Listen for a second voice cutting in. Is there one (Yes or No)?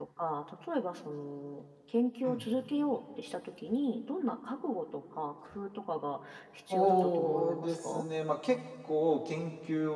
Yes